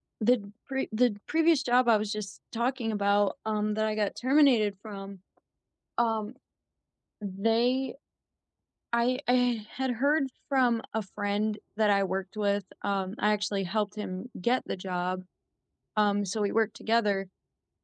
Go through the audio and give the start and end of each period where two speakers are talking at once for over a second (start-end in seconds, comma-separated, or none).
none